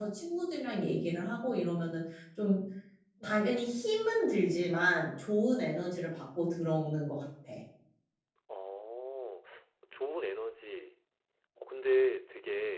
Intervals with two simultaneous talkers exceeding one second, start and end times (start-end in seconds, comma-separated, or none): none